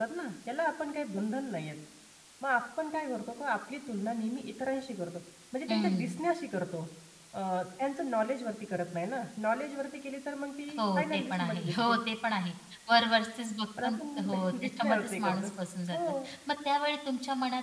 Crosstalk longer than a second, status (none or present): present